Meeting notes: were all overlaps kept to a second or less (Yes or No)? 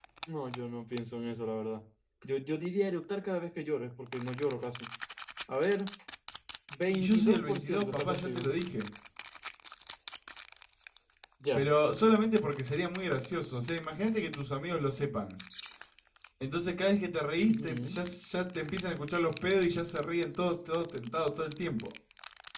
No